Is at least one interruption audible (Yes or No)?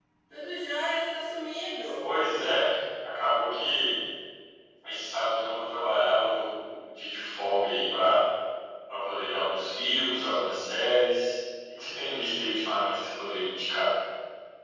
No